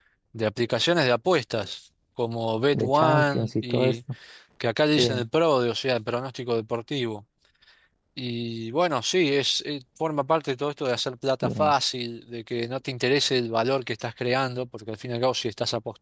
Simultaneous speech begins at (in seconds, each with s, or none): 2.7 s